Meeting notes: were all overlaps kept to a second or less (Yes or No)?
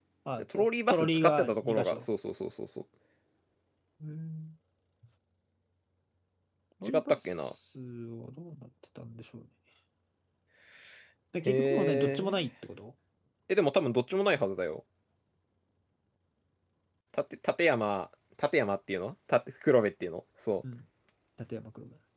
No